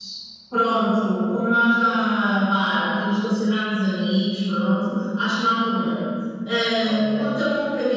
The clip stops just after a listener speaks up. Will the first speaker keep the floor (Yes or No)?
Yes